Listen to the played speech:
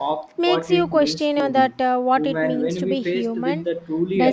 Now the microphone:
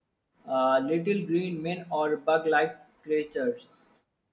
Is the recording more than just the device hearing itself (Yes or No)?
Yes